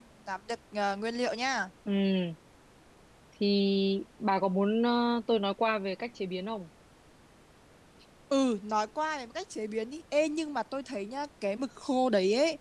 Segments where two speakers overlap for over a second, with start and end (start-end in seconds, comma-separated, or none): none